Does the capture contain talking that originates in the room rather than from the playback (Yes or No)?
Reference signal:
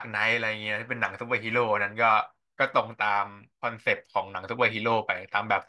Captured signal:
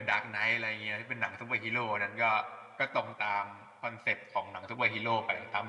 No